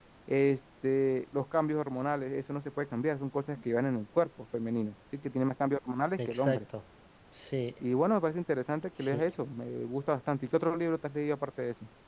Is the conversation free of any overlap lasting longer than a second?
Yes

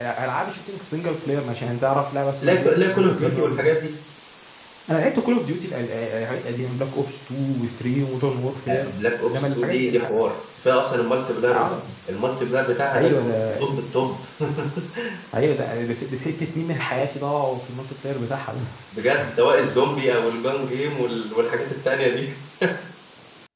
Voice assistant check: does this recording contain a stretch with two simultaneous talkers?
Yes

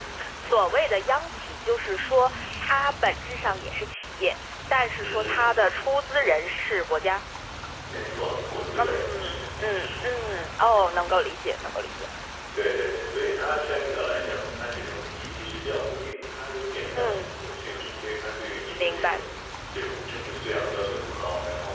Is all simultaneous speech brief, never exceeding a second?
No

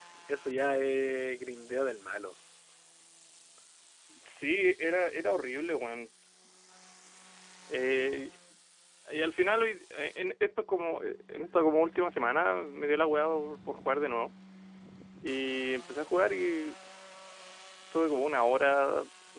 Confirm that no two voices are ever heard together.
Yes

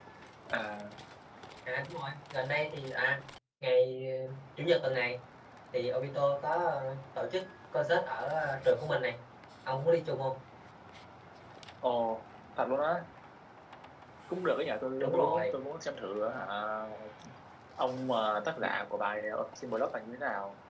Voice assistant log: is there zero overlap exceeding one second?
Yes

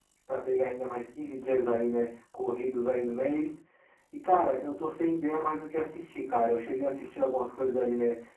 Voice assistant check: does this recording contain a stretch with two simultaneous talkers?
No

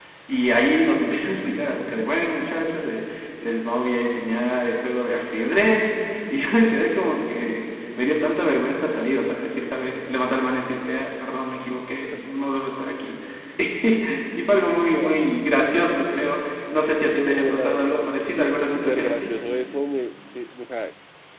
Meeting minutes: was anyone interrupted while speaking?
Yes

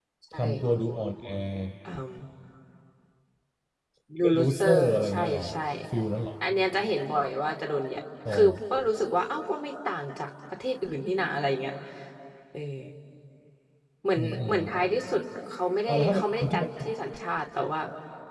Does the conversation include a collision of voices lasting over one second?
Yes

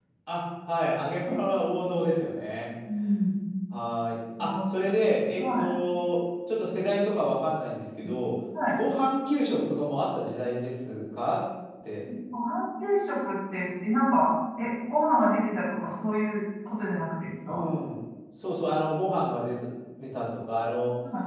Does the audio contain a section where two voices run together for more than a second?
No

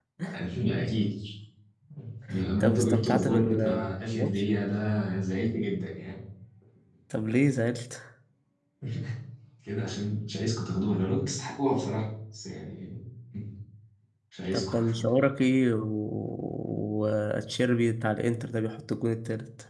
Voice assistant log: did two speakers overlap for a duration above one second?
Yes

